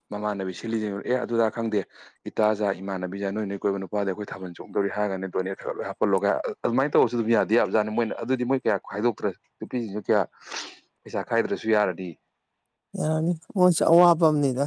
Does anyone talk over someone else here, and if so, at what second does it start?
none

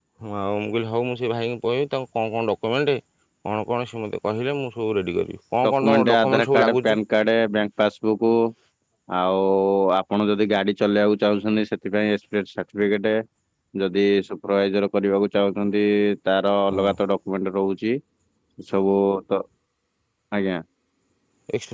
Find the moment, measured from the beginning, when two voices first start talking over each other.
5.6 s

